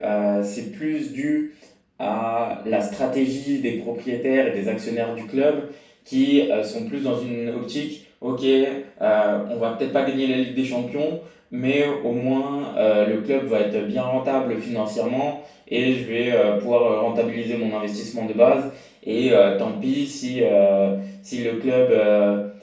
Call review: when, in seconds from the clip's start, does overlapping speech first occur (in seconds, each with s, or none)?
none